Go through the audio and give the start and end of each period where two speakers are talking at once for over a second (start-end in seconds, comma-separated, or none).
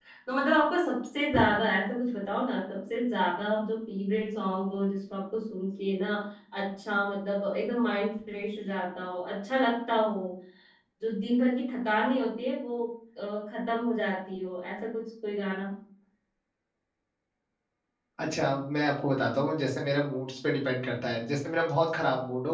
none